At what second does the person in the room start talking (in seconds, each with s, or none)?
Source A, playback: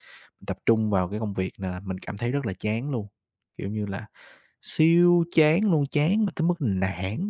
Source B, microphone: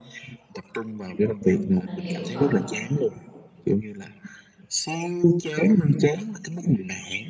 1.4 s